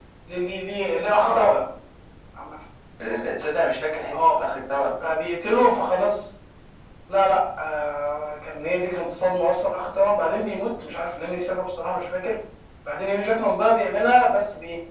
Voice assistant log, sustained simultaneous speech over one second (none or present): none